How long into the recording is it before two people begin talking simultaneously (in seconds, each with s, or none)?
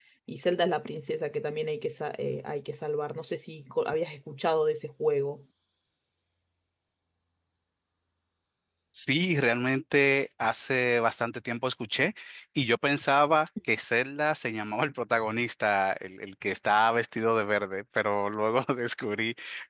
none